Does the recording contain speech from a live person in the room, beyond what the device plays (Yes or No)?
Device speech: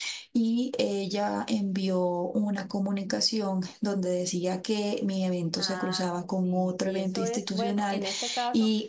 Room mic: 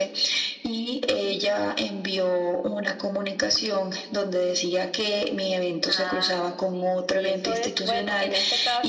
No